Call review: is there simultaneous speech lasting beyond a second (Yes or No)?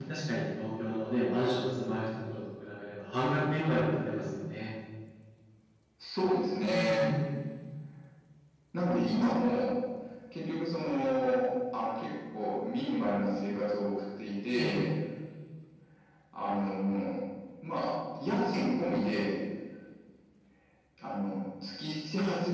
No